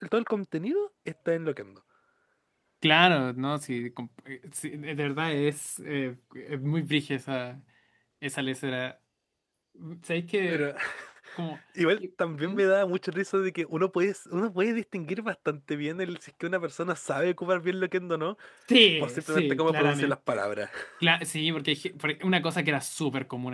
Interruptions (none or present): present